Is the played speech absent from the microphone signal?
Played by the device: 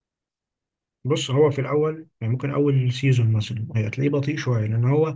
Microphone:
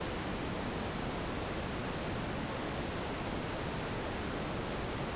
Yes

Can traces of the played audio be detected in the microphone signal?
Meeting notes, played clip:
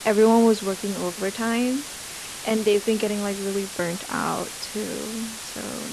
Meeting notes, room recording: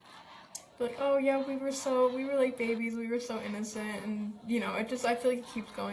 No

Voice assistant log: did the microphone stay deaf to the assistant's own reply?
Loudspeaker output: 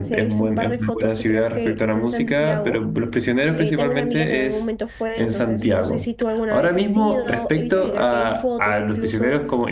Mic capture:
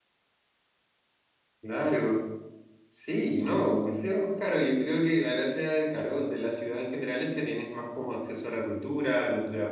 Yes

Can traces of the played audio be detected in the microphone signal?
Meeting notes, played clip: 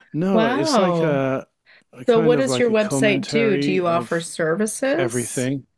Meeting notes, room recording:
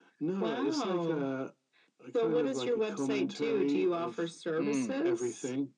Yes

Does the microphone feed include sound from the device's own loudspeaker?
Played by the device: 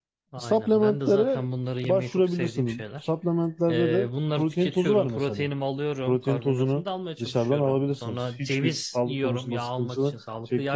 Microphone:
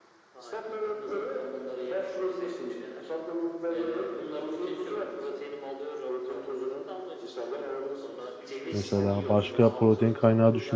Yes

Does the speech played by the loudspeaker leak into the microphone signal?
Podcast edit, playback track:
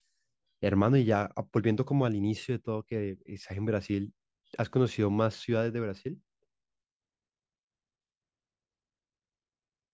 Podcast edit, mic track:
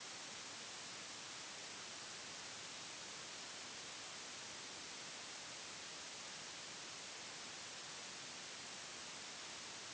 No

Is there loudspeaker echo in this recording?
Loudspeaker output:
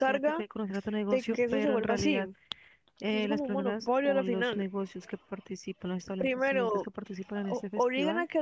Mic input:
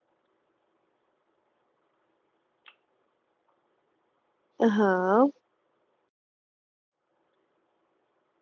No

